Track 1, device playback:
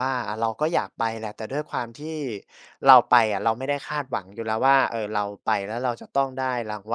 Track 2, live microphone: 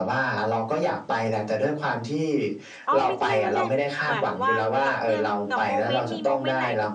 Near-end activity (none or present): present